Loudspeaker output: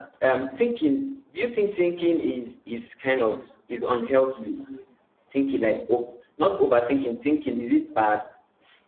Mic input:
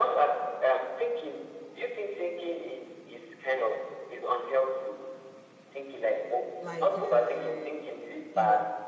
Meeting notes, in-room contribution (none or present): present